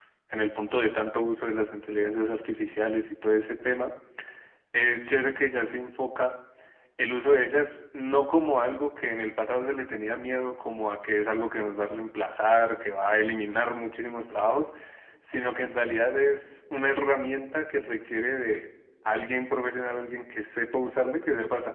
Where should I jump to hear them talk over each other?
none

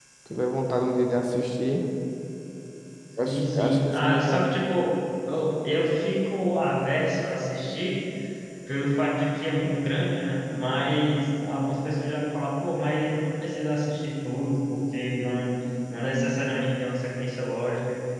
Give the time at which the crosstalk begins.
3 s

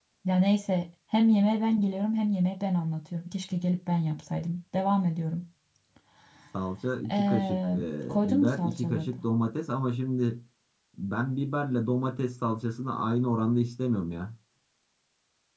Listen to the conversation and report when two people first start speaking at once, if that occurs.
7 s

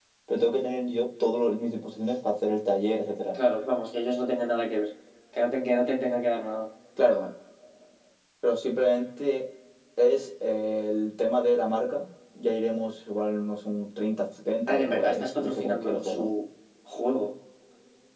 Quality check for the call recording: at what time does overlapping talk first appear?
15 s

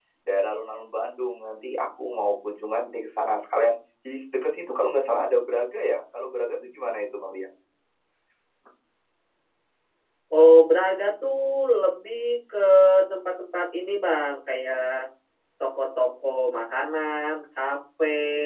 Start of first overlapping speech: none

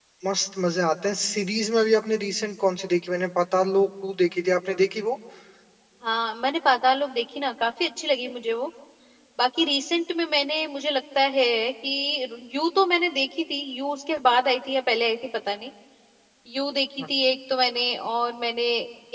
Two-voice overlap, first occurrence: none

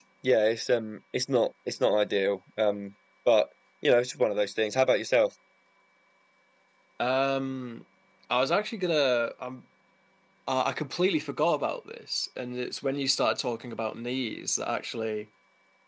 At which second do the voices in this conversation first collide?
none

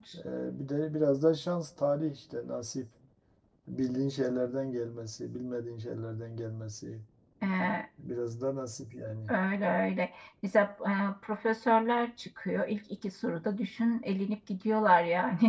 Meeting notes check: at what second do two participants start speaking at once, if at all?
none

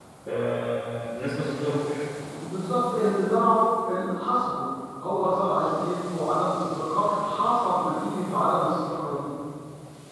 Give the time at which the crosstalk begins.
none

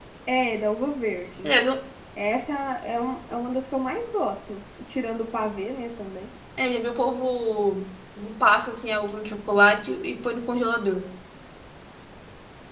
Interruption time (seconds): none

